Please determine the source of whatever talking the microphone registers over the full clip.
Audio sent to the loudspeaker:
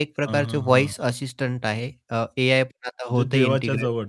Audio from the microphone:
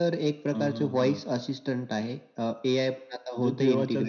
echo only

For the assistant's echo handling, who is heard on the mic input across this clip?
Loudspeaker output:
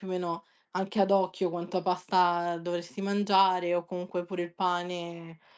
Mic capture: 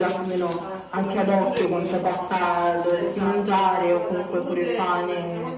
both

